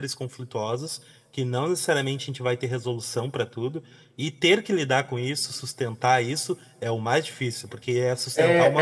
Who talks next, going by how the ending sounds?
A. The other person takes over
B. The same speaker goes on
A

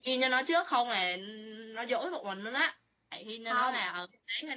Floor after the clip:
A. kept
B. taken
A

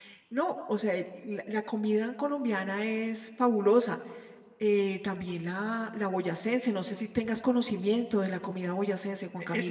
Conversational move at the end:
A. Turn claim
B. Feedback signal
A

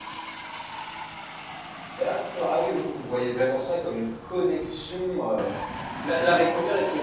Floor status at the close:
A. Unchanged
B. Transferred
A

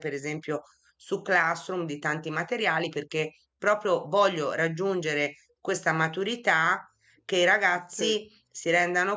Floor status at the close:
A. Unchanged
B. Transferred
A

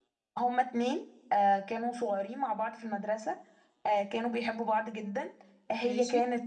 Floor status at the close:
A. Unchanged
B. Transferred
A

